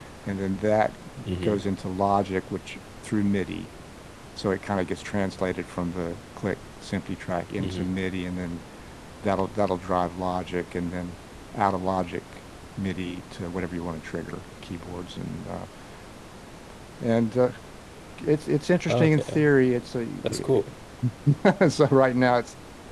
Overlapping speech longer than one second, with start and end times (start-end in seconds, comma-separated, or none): none